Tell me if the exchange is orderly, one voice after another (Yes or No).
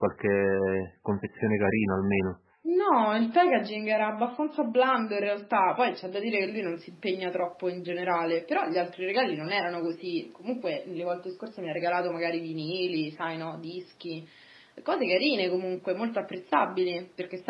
Yes